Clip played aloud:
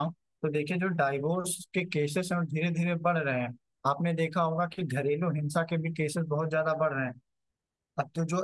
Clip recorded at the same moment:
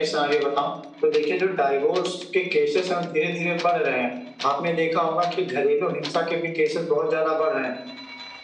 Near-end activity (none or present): none